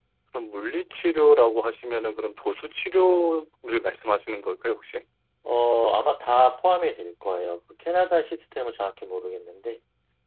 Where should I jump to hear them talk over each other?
none

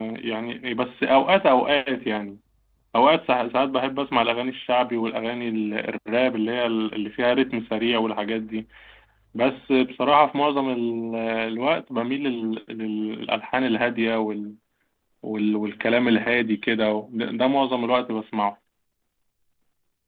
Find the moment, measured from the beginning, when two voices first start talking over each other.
none

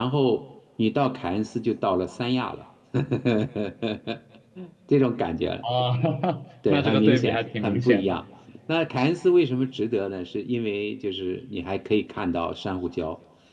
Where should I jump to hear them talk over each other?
6.7 s

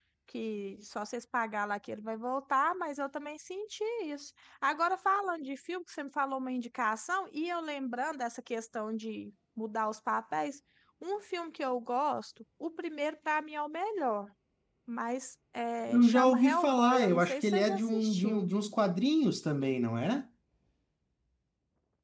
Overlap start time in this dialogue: 15.9 s

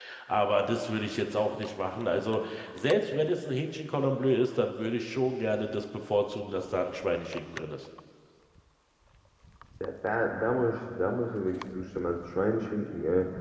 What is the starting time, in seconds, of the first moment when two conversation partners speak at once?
none

